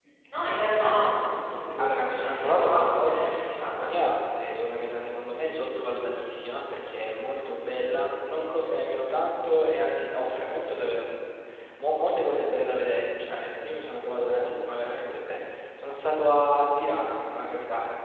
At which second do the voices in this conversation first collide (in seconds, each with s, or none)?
1.8 s